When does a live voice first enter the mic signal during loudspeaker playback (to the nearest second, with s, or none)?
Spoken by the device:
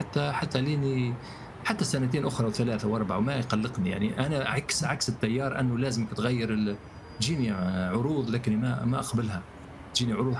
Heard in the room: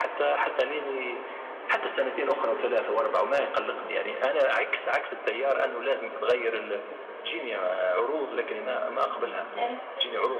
9 s